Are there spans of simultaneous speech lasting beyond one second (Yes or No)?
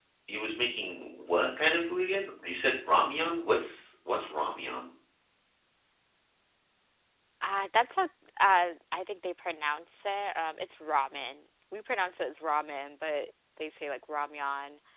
No